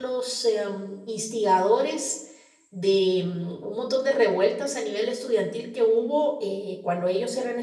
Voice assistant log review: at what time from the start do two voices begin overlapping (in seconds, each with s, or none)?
none